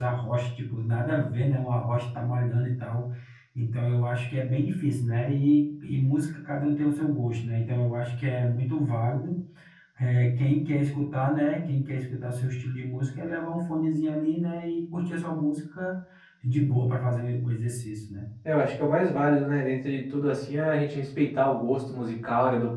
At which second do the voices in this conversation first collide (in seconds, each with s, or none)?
none